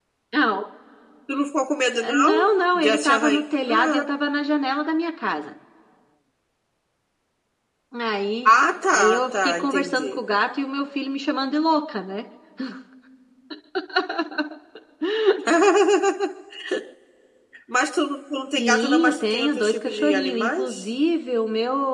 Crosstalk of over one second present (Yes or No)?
Yes